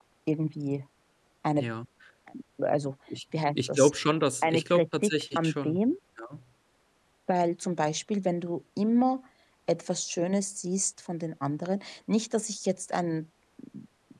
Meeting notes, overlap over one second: present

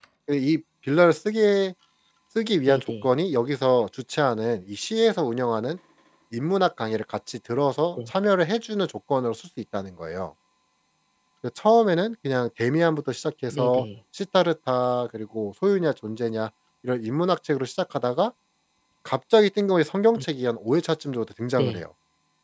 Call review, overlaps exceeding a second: none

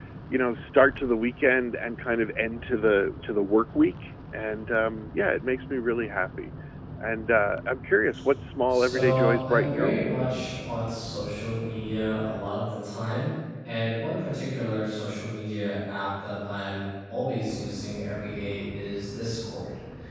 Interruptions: present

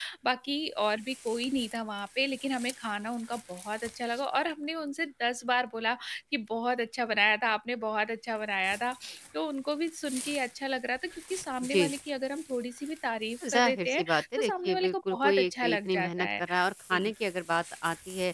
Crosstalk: present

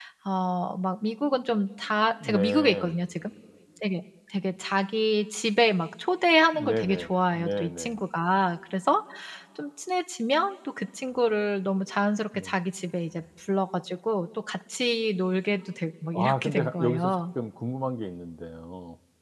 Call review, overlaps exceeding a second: present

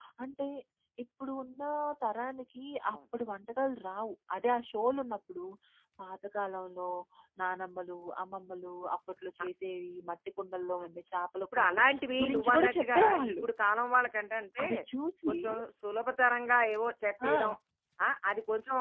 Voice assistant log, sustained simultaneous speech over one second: present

